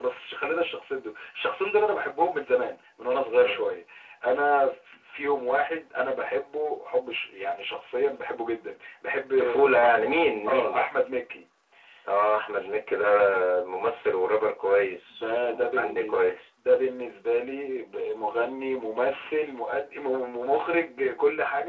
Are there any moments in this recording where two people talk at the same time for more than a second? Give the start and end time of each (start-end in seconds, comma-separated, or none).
15.1-16.3